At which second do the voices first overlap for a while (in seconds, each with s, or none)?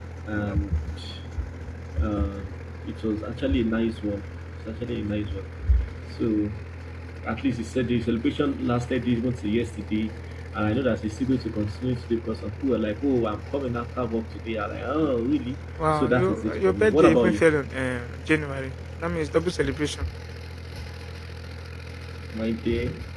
15.8 s